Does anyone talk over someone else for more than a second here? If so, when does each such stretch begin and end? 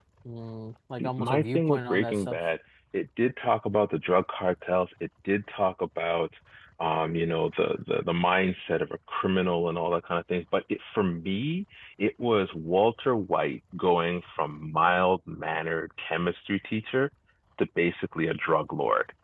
1.0-2.4

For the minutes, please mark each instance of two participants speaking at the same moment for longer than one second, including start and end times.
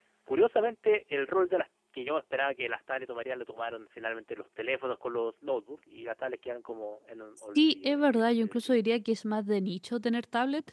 7.5-8.8

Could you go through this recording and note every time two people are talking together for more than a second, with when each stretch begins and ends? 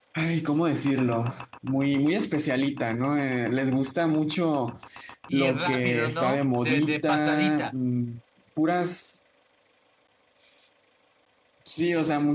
5.3-7.7

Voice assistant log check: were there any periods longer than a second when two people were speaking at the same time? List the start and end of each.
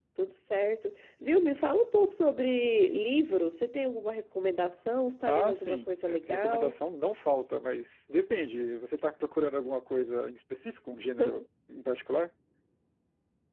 5.3-6.7

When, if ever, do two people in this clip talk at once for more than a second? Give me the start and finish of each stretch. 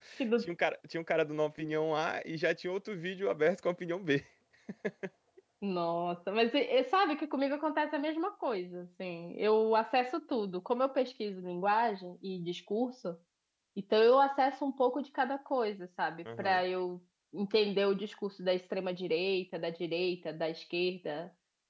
none

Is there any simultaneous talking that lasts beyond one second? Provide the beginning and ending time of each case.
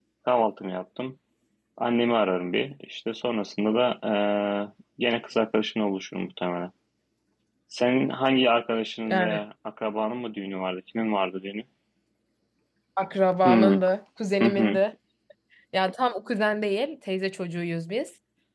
none

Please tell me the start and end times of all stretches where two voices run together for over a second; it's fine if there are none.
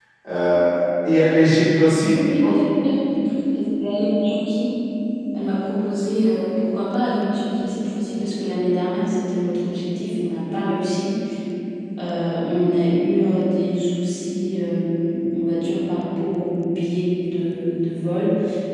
none

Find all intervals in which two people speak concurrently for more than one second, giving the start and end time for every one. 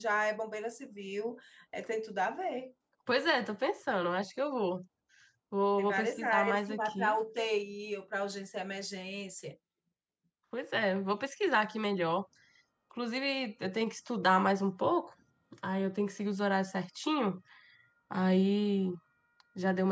5.8-7.2

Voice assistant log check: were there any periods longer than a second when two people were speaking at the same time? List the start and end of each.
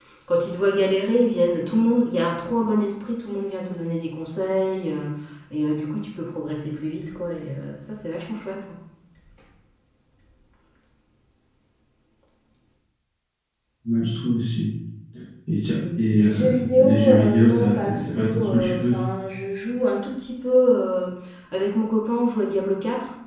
16.2-19.0

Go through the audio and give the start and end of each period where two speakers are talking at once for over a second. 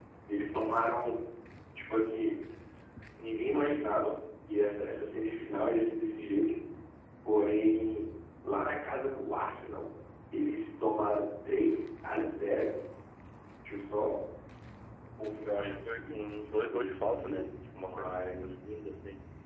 15.4-18.5

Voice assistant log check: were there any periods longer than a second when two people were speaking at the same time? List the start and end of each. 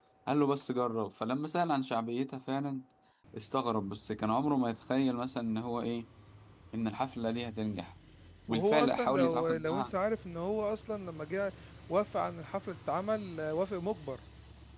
8.5-9.8

